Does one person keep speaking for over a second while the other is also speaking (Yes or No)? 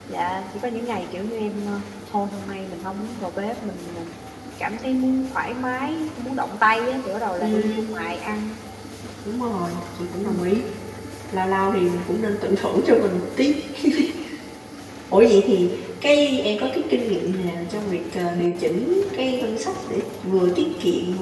No